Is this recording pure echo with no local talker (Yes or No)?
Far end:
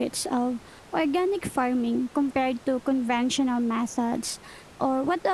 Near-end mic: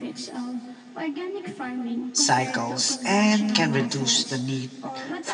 No